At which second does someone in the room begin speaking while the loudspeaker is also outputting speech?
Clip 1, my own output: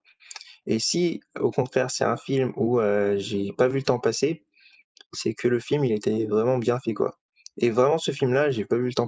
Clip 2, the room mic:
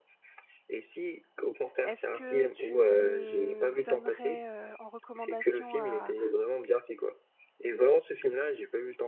1.8 s

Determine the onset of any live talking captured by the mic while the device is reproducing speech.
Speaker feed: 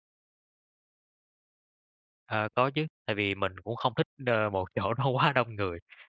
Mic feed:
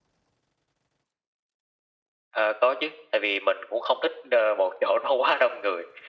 none

